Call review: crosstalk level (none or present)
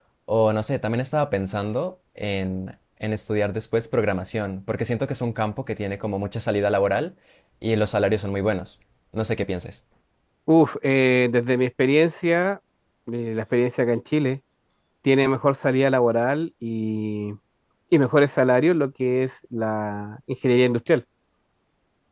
none